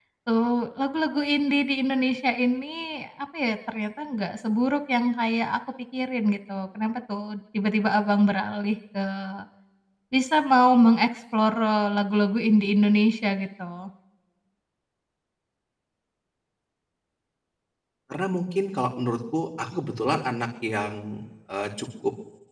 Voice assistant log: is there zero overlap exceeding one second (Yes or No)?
Yes